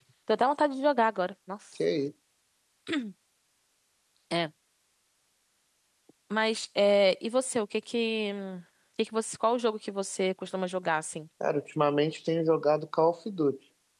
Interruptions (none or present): none